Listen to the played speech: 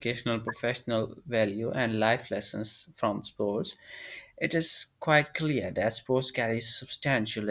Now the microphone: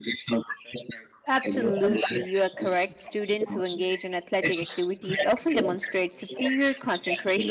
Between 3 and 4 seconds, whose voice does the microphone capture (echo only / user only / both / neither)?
both